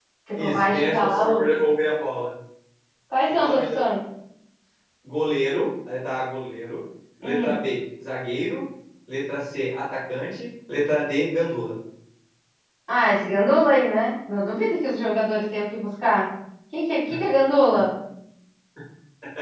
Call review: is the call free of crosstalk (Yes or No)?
No